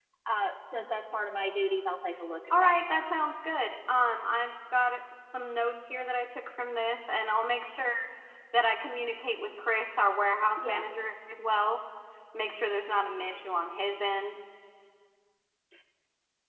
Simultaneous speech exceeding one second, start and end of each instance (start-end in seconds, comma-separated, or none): none